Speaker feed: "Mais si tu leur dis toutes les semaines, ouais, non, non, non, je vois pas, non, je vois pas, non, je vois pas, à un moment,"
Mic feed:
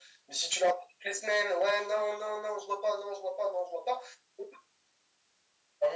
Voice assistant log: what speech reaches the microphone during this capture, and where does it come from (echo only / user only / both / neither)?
echo only